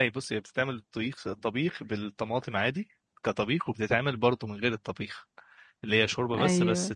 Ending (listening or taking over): listening